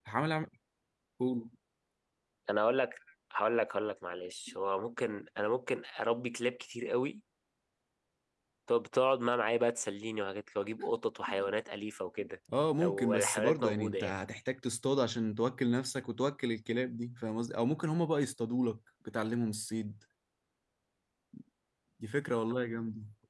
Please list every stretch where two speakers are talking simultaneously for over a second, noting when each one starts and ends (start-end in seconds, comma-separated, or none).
12.8-14.1